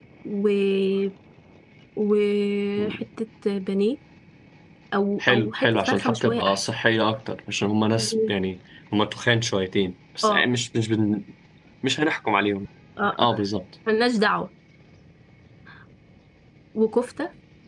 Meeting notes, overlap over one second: present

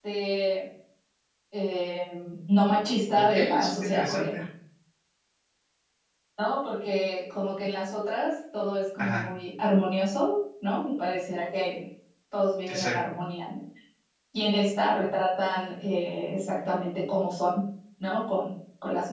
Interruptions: present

